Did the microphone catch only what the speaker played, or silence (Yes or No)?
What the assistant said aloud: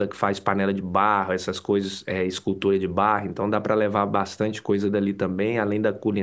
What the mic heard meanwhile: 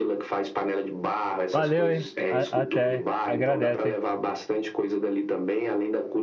No